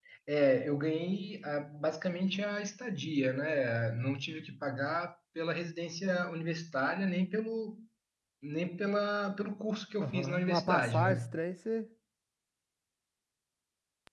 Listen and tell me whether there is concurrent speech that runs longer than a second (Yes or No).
Yes